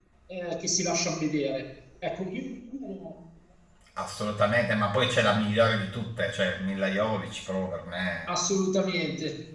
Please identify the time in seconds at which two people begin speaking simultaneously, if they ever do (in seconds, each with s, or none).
none